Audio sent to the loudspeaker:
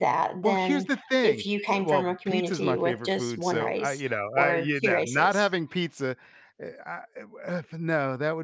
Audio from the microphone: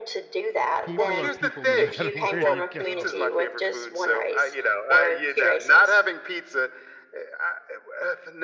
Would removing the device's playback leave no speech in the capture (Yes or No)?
No